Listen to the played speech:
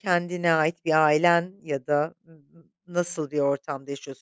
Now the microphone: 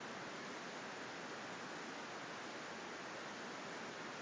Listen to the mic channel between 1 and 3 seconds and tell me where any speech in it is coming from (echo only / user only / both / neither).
neither